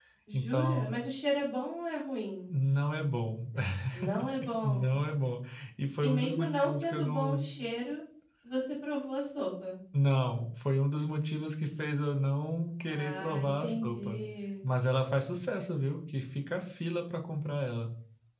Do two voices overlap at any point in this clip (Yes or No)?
Yes